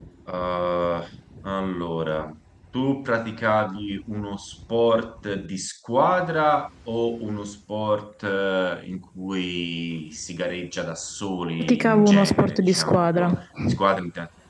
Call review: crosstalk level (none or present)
present